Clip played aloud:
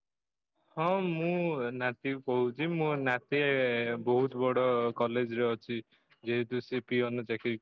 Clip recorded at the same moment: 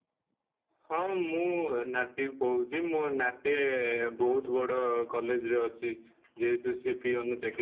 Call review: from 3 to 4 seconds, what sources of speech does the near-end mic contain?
echo only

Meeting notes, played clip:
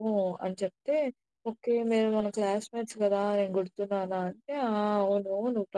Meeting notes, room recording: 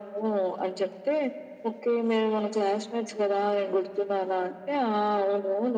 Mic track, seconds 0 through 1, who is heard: echo only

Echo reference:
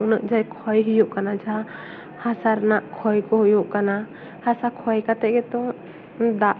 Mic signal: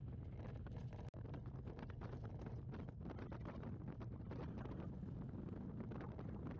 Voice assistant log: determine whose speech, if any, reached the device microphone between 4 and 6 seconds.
neither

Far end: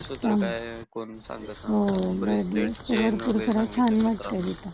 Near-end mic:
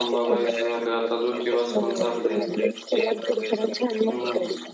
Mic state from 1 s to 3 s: both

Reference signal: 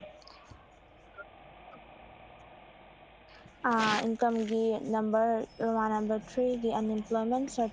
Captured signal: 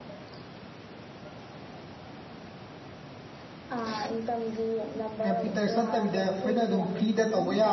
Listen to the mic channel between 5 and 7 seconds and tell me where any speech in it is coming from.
both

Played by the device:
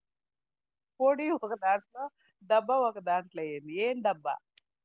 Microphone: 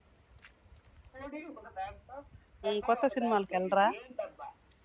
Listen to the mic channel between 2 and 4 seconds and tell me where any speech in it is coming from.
both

